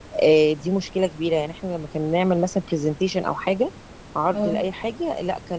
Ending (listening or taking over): listening